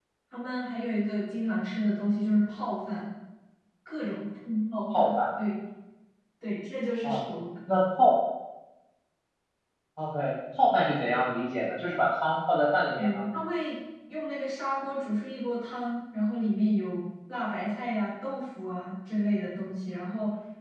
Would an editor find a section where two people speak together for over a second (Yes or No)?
No